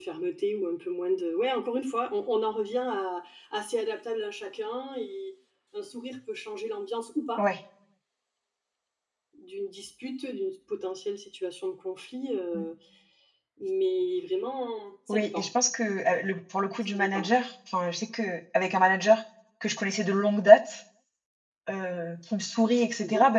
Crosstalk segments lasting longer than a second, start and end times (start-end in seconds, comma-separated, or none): none